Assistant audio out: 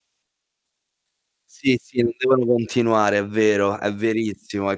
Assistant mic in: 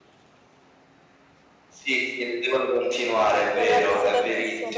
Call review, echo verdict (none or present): present